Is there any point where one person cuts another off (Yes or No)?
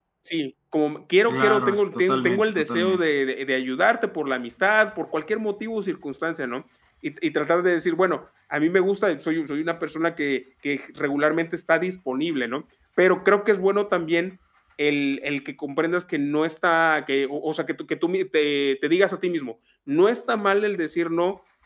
Yes